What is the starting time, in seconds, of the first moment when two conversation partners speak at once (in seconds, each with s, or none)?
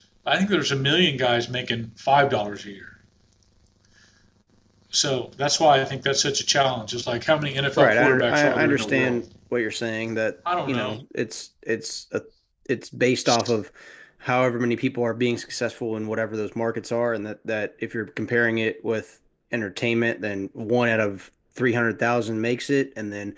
7.8 s